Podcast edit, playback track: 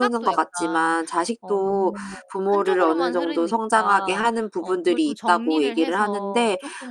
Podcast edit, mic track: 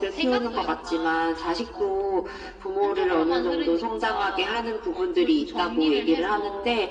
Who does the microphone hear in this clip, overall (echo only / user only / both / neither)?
echo only